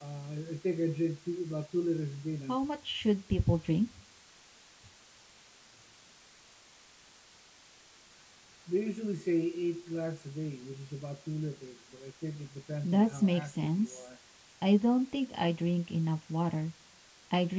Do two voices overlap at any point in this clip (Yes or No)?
Yes